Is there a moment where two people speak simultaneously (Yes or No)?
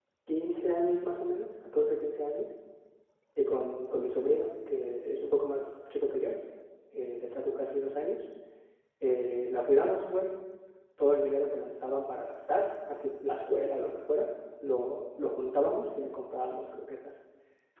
No